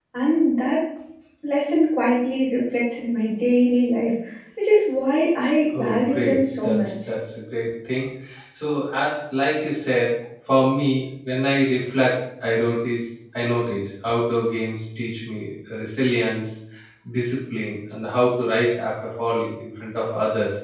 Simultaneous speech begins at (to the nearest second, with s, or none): 6 s